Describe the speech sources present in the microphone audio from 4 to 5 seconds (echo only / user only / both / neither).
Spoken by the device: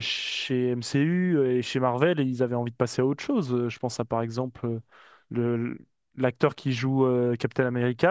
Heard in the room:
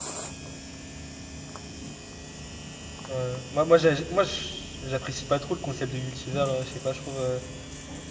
user only